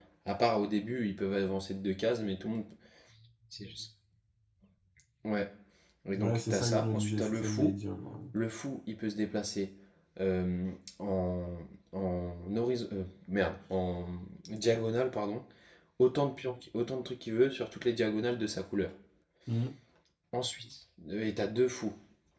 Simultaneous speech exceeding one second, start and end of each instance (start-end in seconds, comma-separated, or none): 6.2-7.8